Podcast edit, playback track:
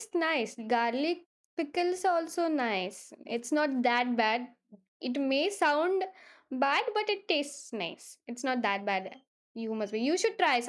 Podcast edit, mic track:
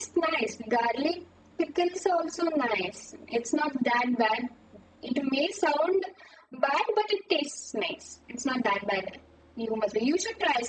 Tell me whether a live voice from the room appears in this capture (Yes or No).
No